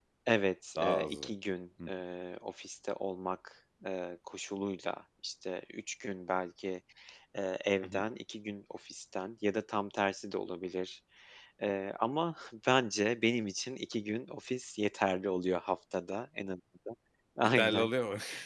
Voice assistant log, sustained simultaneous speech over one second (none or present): none